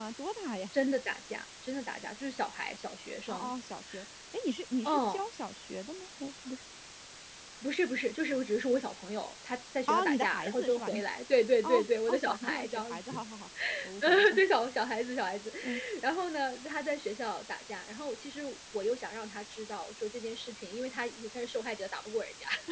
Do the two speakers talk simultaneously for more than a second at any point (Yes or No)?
Yes